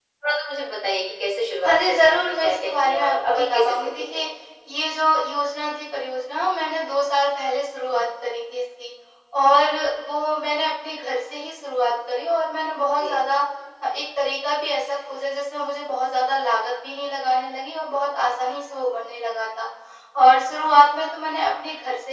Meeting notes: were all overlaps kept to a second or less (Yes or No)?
No